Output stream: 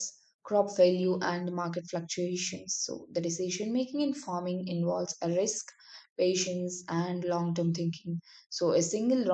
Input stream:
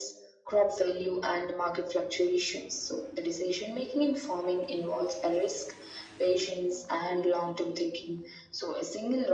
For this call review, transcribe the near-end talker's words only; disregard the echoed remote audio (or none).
none